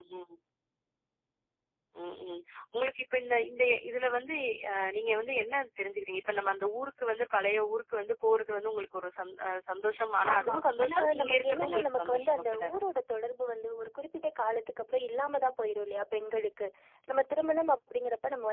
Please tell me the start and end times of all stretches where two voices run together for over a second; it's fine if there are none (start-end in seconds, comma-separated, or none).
10.3-12.8